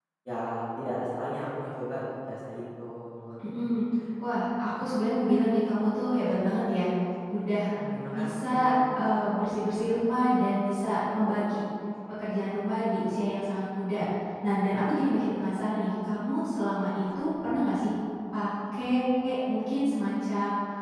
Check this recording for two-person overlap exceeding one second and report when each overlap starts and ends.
none

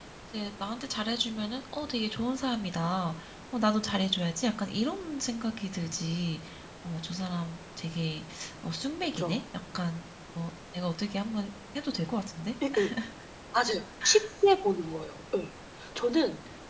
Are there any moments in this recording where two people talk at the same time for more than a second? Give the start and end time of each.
none

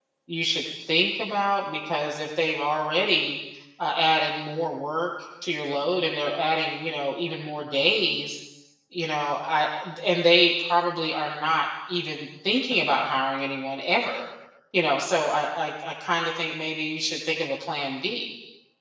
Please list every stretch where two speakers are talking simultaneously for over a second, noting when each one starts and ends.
none

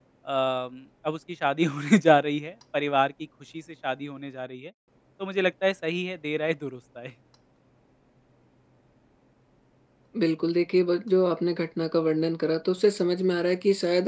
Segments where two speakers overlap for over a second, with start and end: none

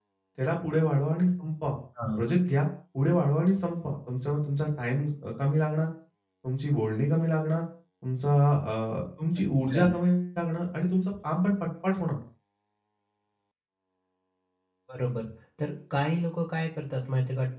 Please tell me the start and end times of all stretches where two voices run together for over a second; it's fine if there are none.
none

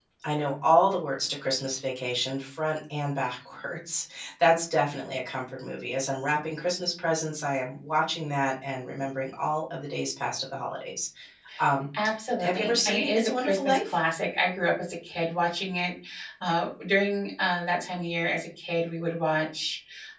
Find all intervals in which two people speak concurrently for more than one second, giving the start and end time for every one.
12.4-14.0

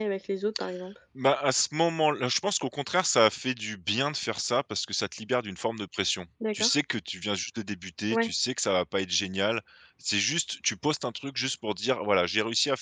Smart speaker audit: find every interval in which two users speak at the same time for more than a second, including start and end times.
none

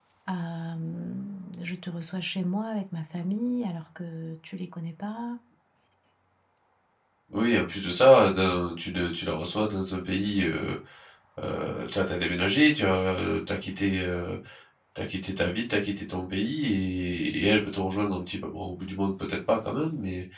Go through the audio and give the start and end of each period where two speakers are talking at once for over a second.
none

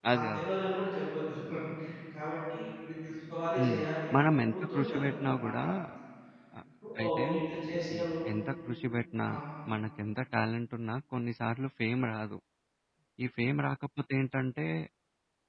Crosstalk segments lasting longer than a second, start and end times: 4.2-5.5

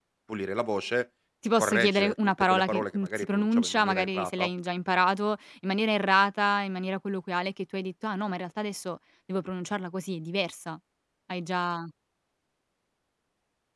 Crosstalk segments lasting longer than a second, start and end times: 1.6-4.5

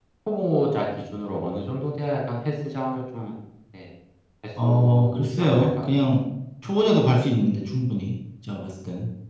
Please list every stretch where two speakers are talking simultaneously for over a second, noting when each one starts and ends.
4.6-6.0

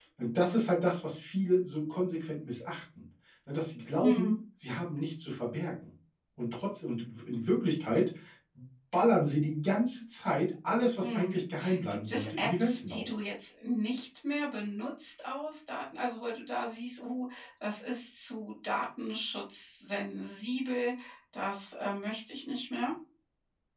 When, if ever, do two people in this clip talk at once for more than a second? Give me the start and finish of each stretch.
11.9-13.2

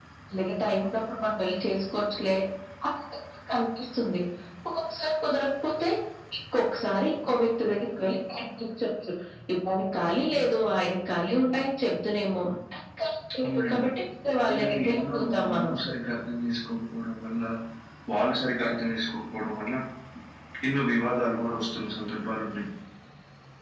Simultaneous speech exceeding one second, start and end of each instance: 14.5-15.7

